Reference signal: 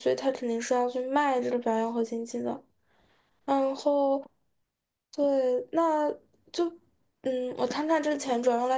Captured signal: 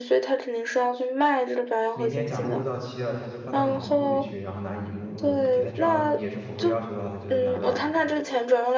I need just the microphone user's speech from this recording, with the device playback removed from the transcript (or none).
明天甲目录到期了，他就换到乙目录里去，然后拿乙目录的补贴，他只要也是符合要求的话，他就能拿到。